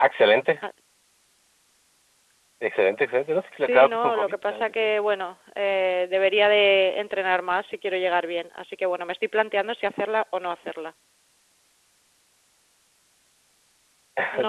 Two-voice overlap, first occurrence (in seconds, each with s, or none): 3.5 s